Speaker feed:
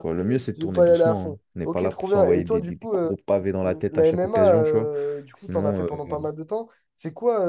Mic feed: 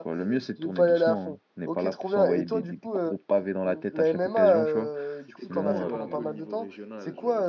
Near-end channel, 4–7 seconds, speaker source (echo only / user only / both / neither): both